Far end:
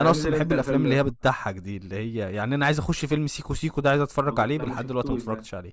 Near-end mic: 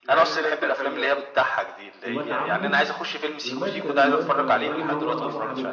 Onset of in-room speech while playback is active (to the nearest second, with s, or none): 2 s